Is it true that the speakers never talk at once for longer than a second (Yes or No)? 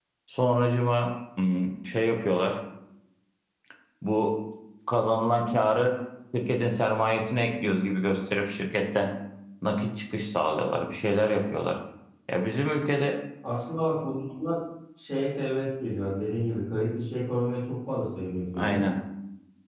Yes